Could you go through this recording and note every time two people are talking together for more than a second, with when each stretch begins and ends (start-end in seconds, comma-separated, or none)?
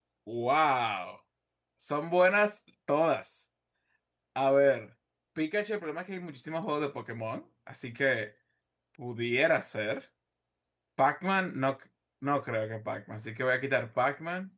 none